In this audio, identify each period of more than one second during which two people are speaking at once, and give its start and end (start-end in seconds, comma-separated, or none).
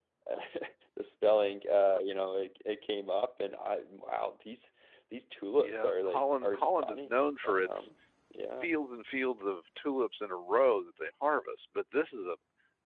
5.6-7.9